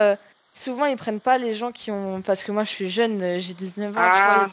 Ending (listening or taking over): listening